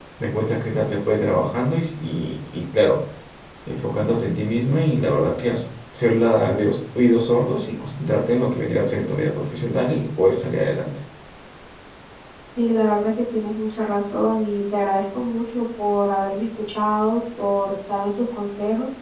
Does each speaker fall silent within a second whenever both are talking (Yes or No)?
Yes